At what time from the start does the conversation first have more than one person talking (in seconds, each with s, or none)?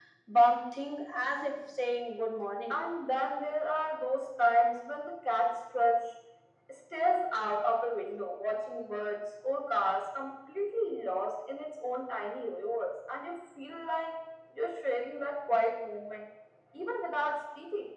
none